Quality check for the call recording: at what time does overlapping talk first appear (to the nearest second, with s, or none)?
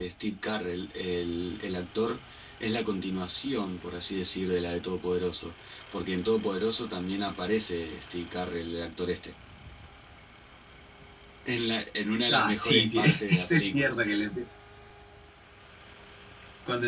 12 s